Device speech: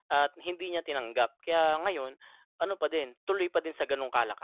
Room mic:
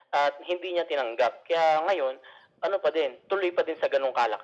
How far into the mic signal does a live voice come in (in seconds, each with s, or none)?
none